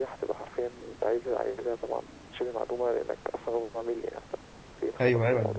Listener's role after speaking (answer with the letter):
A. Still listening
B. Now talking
B